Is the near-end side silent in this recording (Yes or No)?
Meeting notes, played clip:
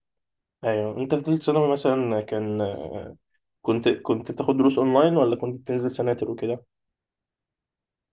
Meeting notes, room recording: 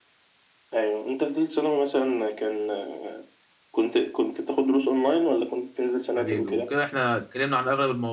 No